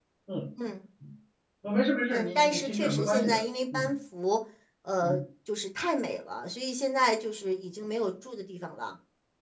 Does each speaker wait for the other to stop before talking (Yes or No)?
No